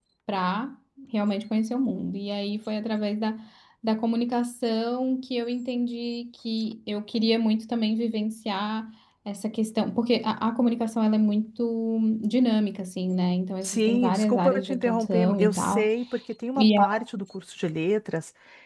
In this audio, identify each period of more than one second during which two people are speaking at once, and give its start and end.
13.6-15.9

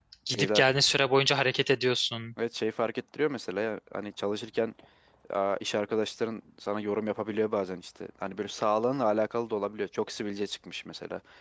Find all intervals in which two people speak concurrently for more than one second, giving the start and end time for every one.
none

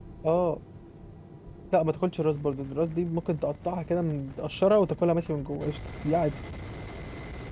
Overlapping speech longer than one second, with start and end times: none

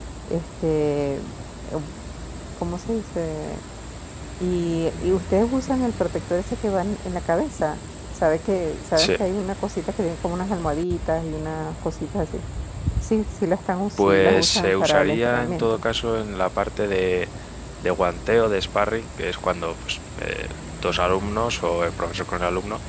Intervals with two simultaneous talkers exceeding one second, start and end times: 14.0-15.8

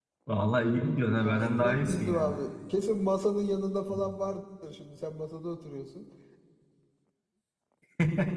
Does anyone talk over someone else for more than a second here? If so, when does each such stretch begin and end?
1.2-2.4

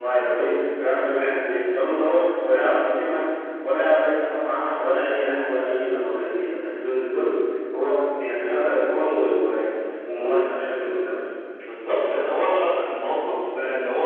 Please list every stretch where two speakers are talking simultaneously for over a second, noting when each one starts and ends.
none

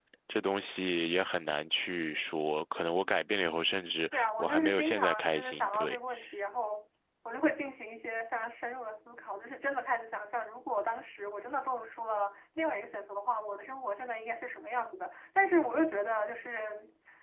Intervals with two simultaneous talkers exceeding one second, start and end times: 4.1-6.0

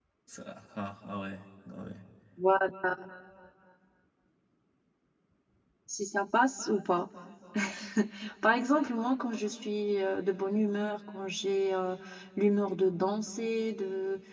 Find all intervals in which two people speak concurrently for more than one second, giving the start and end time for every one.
none

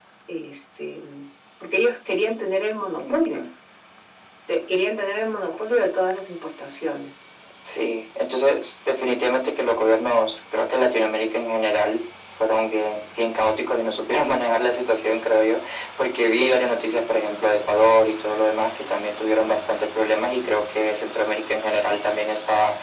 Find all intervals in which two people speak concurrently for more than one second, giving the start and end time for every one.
none

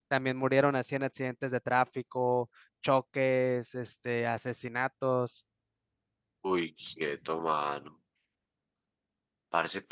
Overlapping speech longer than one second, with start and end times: none

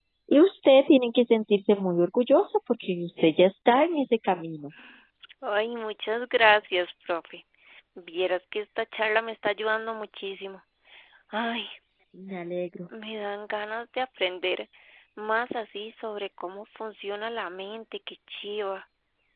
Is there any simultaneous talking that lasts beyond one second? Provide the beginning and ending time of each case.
none

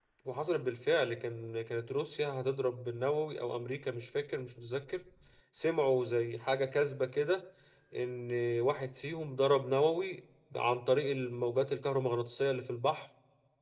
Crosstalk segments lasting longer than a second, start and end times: none

